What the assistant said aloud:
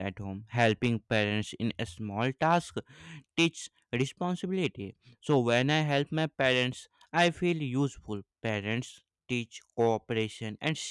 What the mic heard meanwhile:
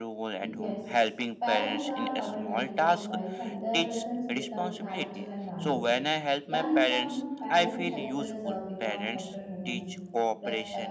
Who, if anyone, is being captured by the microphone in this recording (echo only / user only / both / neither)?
both